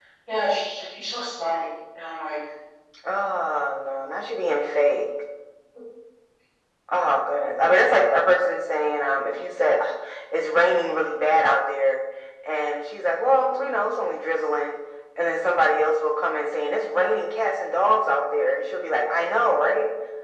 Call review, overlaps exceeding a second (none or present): none